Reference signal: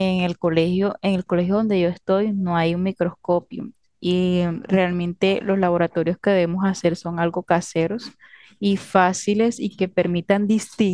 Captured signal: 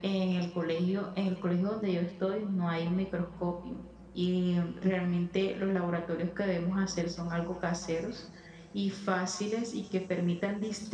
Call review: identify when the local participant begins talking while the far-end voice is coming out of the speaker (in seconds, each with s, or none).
none